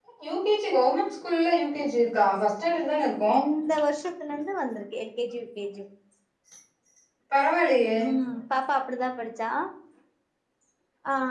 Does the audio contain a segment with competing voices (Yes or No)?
No